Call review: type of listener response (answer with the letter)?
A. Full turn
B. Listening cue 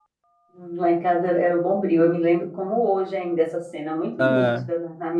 B